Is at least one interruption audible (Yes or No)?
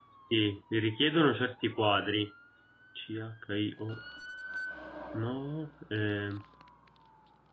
No